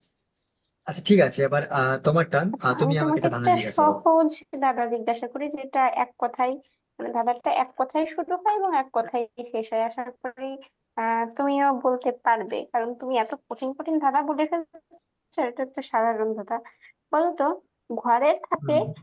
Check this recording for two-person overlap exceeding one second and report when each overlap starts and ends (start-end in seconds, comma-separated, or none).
2.7-4.0